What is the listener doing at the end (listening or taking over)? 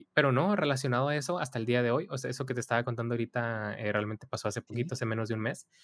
listening